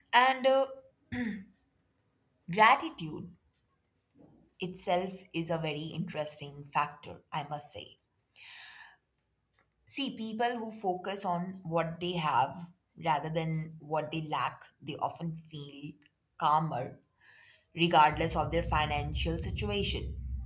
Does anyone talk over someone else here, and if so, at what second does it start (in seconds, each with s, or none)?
none